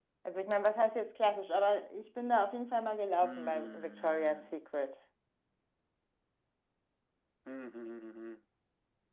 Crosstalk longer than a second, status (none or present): present